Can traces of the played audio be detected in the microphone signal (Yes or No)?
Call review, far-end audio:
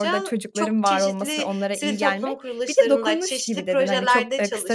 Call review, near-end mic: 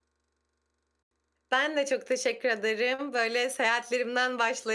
No